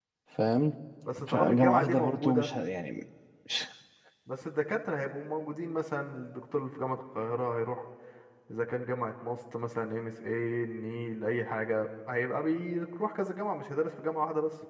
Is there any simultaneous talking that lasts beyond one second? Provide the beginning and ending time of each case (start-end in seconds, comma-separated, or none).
1.3-2.5